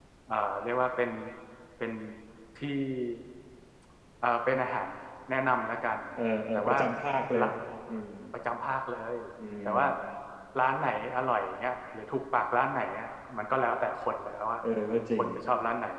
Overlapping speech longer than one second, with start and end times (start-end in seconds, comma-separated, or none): none